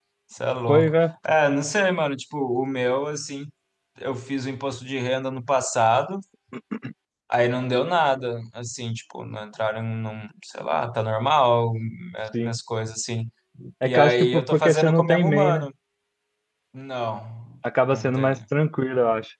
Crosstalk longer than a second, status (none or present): present